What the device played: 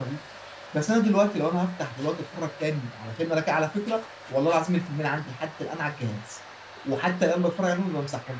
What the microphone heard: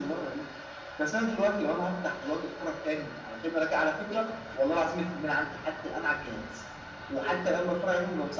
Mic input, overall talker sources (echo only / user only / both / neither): echo only